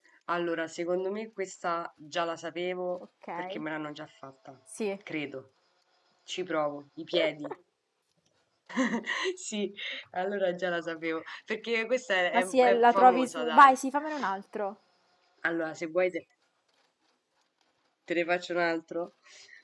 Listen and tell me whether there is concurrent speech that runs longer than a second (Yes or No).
Yes